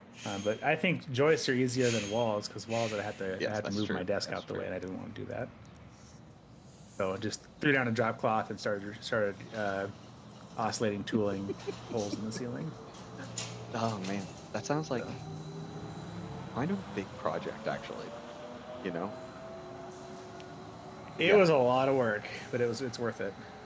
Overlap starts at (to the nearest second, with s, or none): 3 s